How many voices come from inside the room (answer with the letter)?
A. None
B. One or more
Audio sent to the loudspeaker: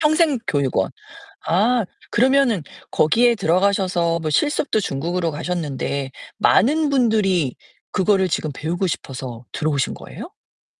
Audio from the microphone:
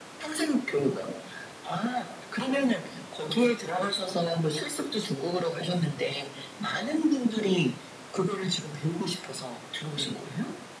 A